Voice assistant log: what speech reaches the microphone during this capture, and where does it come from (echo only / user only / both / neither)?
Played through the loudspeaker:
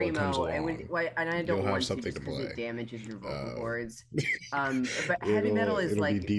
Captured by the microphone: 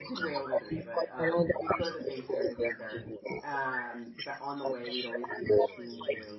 both